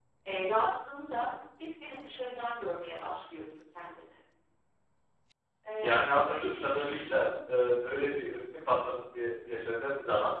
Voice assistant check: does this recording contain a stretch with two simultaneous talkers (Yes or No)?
Yes